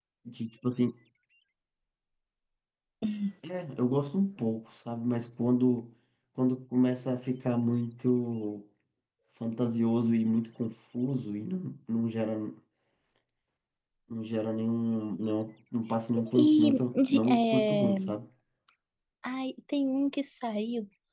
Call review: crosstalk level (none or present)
present